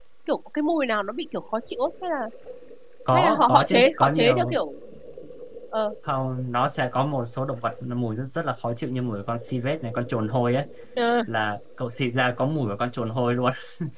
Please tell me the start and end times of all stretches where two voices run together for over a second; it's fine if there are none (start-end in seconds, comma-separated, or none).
3.1-4.6